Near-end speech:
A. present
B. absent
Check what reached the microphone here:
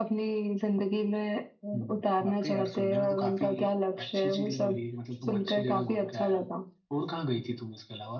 B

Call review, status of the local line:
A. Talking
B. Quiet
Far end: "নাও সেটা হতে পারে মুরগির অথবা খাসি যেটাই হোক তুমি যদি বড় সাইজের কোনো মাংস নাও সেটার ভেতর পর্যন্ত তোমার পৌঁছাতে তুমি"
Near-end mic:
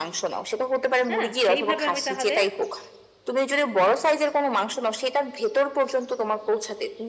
A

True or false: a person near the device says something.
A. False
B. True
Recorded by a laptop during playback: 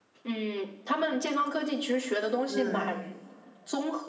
B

